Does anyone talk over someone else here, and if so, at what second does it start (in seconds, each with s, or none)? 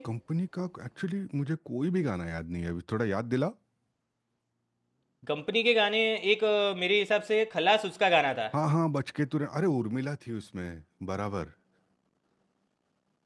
none